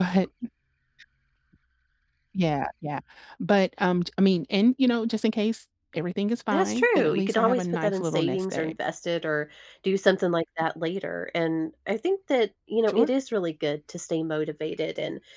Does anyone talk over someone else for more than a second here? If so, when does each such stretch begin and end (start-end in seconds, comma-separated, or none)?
6.5-8.7